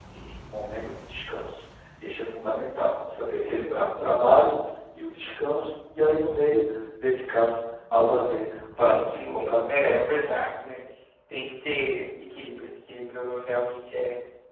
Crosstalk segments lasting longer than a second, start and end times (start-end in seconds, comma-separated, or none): 8.8-10.4